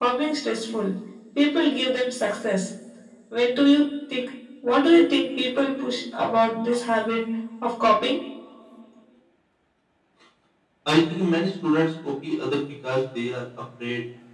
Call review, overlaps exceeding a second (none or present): none